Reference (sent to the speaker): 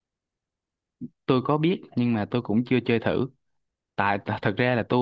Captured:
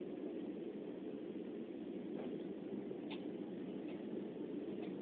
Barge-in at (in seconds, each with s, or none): none